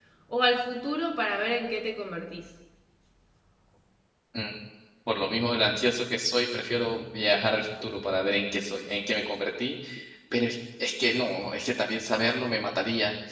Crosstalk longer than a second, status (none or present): none